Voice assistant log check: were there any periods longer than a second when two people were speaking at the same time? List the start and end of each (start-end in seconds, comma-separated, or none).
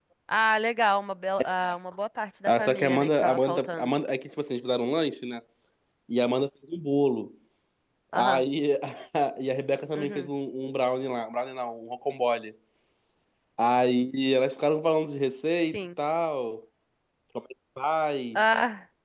2.6-3.9